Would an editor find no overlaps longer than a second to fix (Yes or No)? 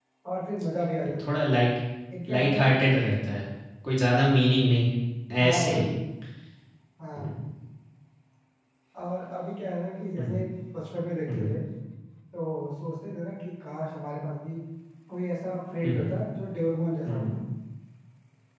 Yes